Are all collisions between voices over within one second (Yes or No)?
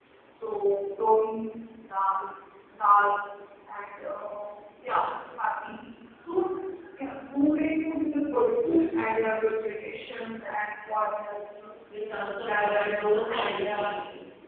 No